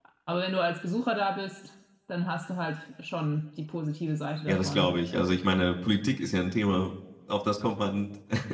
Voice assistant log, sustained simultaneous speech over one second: none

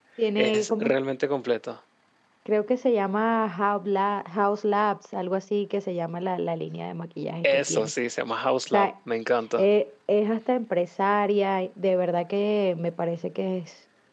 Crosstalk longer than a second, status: none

